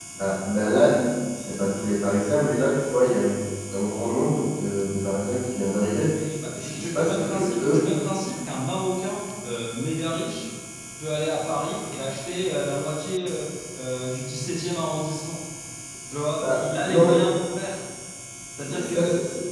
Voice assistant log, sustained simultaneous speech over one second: present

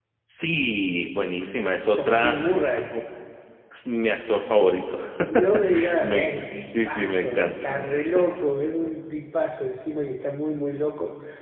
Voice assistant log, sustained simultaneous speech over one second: present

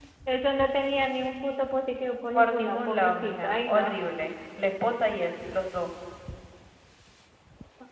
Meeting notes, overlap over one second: present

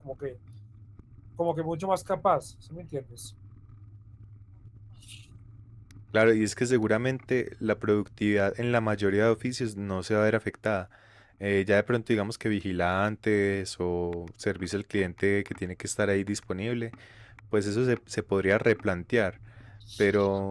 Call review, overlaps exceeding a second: none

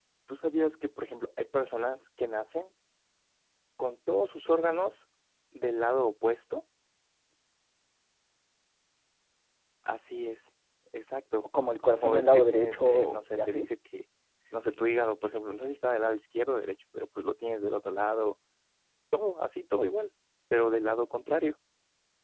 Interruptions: present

